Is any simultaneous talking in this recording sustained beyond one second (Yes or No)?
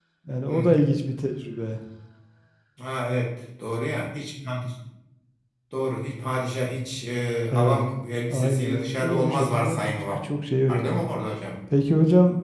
Yes